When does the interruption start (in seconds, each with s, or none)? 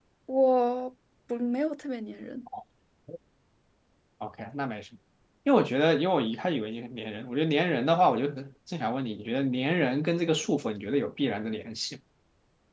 none